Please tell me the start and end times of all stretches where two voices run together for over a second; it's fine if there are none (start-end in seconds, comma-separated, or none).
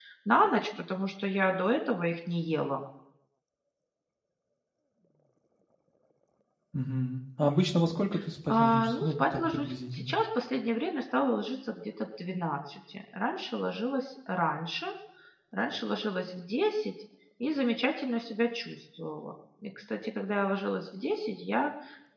8.5-10.2